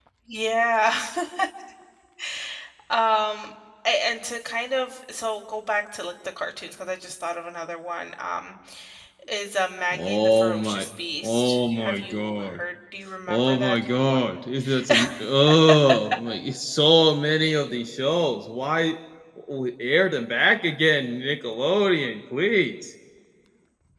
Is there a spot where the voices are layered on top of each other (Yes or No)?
Yes